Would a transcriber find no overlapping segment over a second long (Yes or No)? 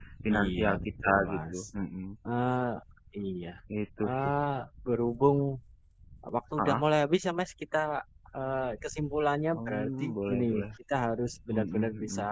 No